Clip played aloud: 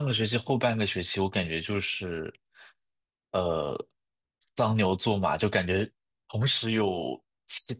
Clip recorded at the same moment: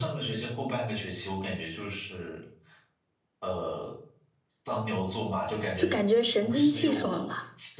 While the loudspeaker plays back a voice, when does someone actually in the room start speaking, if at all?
5.8 s

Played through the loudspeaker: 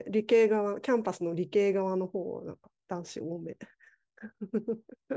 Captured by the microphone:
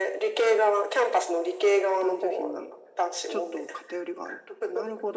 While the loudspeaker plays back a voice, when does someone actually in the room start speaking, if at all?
2.0 s

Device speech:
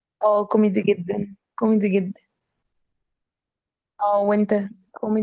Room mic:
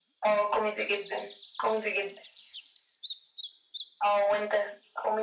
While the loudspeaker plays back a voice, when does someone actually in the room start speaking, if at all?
none

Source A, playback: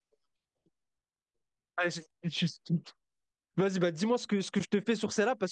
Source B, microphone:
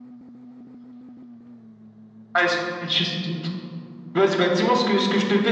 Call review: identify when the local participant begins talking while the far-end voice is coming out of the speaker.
none

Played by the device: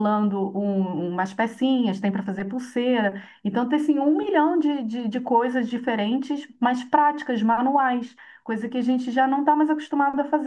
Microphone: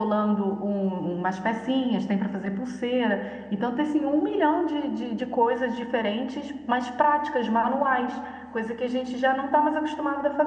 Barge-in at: none

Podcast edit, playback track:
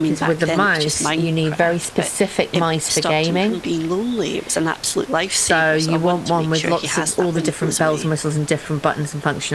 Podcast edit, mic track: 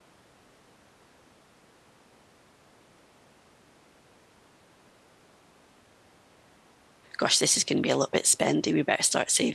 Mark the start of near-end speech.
7.2 s

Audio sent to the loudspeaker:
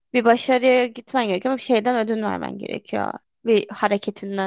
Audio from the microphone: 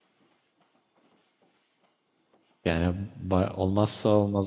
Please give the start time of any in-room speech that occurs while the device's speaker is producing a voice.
2.6 s

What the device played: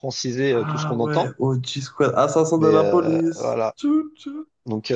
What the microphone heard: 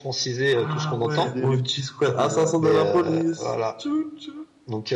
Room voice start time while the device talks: 1.1 s

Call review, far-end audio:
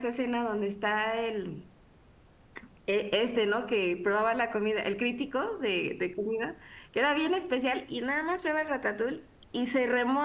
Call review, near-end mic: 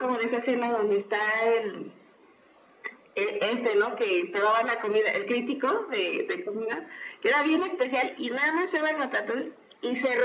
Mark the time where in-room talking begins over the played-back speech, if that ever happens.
none

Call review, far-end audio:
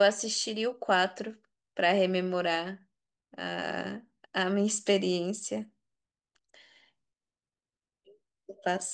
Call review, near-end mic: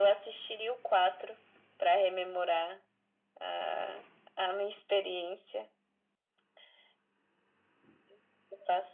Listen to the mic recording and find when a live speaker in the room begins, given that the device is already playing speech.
none

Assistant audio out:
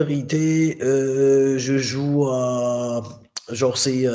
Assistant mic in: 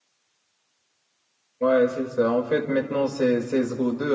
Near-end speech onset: 1.6 s

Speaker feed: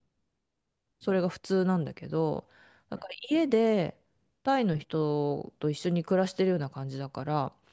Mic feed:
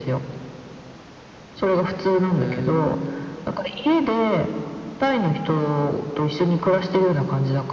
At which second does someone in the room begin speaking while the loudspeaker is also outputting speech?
2.4 s

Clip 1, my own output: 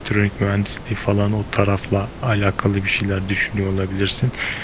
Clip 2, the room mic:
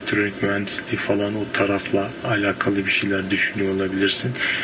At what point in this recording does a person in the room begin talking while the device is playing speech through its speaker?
none

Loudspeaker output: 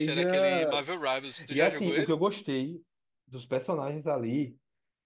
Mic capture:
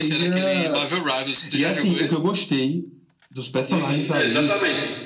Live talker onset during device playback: 3.7 s

